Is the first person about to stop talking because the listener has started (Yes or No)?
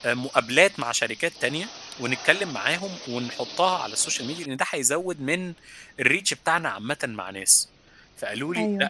No